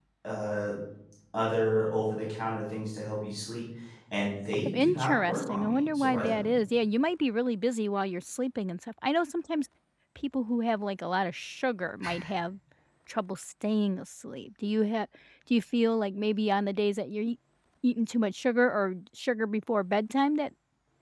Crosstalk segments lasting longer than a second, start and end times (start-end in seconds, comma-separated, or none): 4.5-6.5